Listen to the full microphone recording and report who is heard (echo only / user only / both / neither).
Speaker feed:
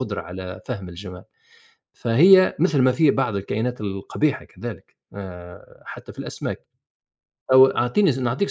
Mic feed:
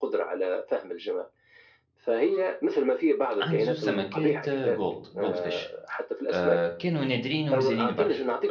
both